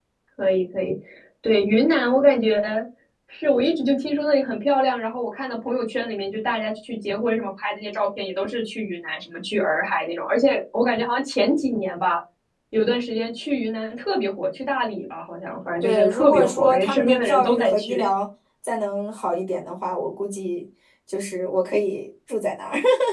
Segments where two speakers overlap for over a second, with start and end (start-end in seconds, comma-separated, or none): 15.8-18.0